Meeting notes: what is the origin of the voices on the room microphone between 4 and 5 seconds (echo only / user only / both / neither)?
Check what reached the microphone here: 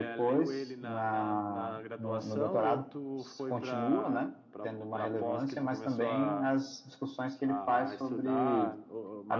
echo only